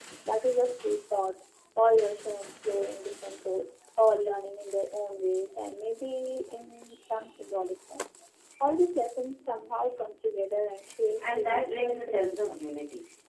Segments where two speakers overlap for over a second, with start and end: 11.2-12.7

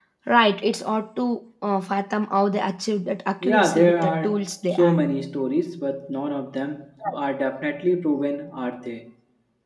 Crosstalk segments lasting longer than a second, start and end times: 3.4-5.0

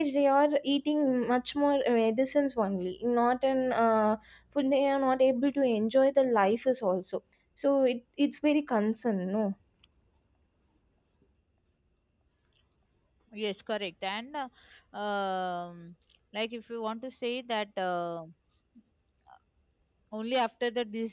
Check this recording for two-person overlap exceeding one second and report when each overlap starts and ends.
none

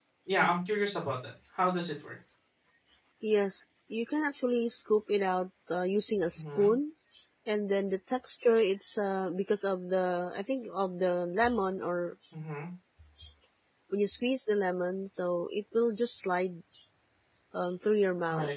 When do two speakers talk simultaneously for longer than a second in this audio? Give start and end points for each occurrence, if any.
none

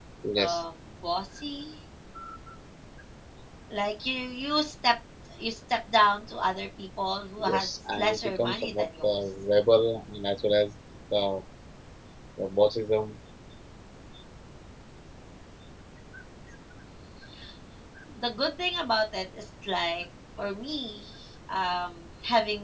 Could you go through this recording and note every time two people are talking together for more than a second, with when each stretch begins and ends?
7.4-9.2

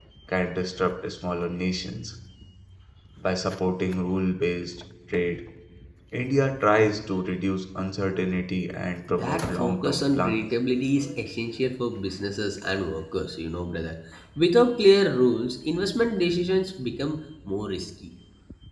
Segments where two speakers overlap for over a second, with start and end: 9.1-10.5

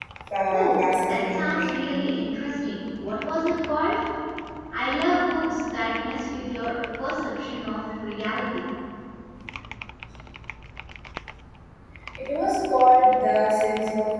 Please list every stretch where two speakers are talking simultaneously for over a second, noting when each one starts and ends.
0.5-1.7

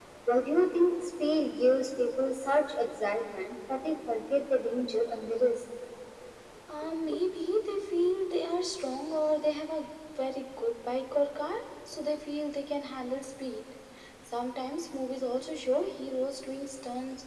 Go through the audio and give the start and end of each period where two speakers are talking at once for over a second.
none

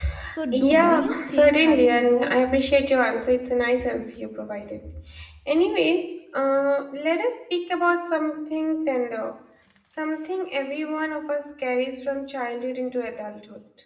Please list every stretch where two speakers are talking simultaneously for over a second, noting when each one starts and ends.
0.5-2.4

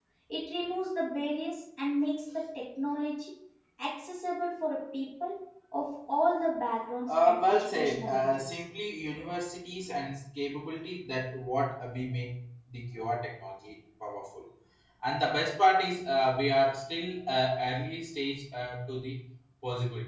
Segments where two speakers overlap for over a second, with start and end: 7.1-8.6

